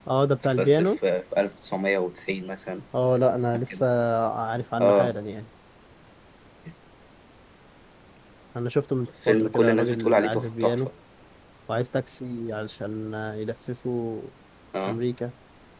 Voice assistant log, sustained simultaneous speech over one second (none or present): present